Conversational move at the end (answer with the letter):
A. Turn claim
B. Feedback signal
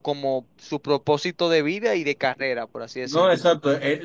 A